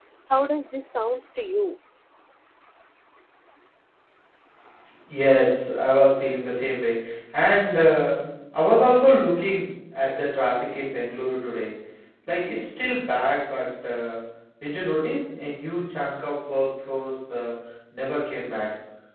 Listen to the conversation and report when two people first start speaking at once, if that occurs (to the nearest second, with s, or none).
none